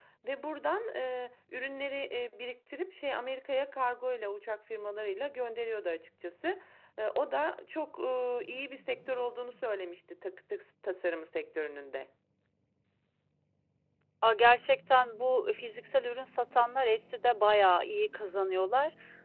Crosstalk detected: No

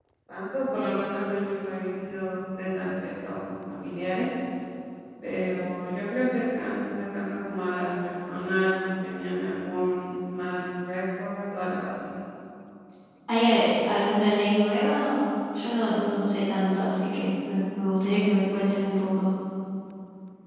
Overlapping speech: No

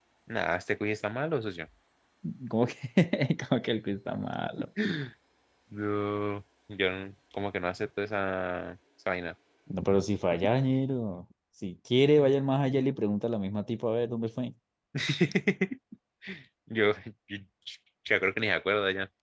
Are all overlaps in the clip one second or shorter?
Yes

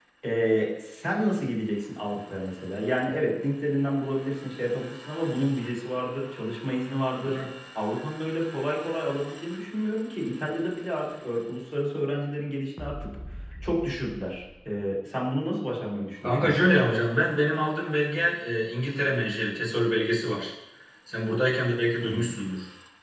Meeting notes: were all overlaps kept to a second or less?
Yes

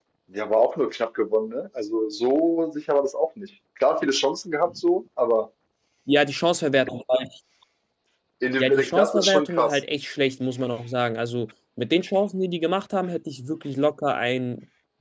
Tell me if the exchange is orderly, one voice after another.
No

